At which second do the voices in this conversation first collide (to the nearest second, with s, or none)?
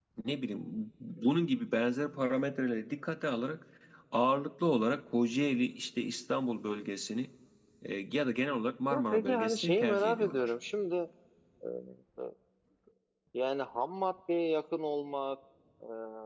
9 s